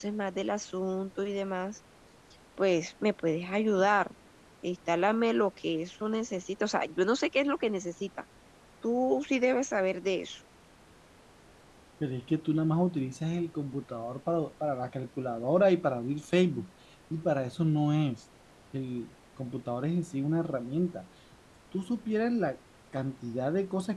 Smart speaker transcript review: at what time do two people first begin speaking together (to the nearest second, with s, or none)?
none